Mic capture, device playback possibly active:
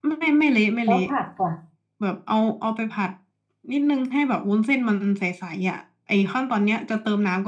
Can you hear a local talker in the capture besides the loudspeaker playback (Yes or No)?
Yes